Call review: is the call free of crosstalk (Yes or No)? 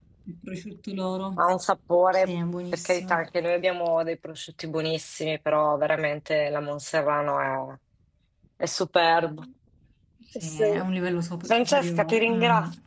No